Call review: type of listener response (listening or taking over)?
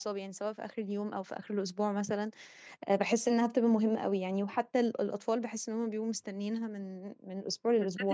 taking over